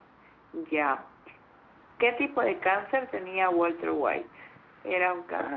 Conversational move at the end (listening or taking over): listening